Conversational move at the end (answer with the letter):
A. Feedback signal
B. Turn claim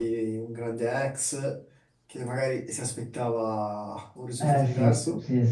B